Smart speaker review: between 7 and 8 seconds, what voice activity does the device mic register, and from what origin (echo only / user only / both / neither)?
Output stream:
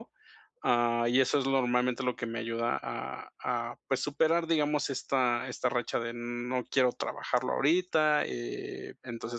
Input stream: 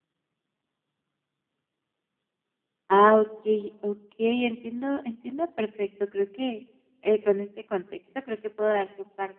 user only